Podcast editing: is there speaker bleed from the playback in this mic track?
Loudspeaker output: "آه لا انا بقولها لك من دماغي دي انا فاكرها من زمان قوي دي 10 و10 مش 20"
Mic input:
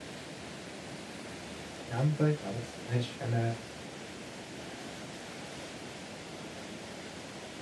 No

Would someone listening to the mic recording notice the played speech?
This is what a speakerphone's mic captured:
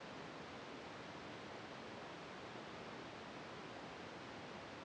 No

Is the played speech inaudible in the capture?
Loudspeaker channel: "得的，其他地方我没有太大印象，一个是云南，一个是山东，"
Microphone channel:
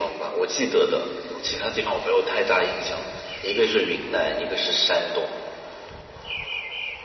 No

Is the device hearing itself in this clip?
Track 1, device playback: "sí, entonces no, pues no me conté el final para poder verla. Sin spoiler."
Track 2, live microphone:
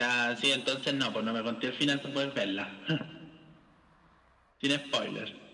Yes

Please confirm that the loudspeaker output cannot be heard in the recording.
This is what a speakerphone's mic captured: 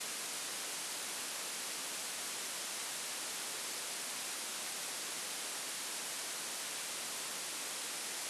Yes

